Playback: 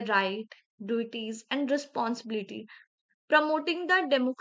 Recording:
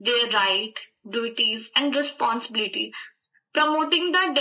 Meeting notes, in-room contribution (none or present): none